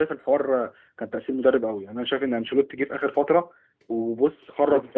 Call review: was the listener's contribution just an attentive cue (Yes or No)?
No